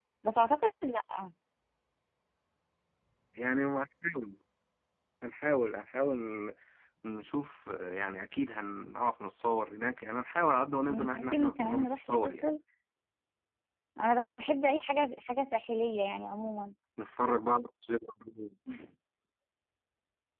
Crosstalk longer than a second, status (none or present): present